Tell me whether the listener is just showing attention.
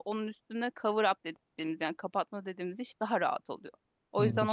No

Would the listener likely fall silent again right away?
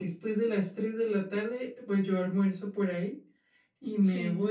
Yes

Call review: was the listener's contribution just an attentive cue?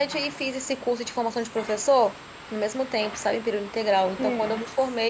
Yes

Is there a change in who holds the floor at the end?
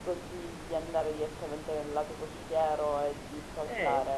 Yes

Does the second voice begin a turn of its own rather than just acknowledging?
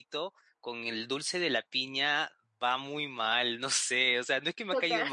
No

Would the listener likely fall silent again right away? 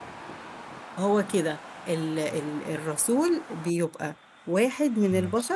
Yes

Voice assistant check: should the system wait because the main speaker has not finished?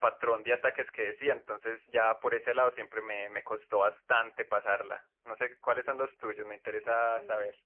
No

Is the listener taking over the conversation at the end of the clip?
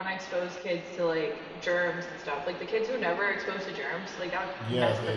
Yes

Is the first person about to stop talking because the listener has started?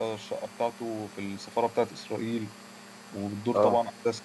No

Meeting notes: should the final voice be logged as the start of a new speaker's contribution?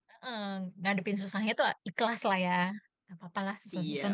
Yes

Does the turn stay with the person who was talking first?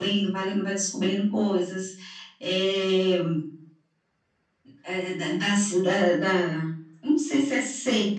Yes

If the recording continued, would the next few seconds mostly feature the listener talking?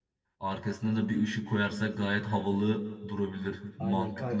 Yes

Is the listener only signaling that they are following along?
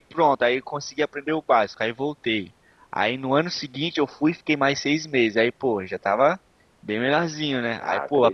Yes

